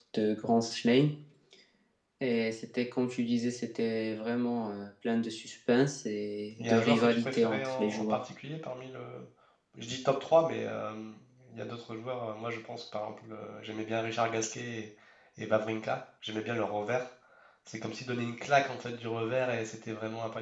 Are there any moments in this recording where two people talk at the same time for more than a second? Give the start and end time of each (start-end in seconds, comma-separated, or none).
6.6-8.2